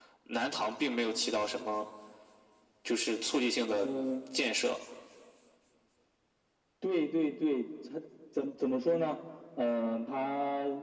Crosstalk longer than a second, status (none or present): none